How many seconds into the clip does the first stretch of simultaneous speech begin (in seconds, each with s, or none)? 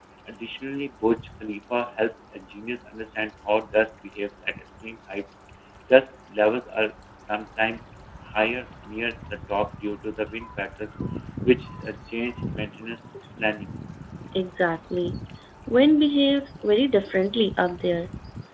none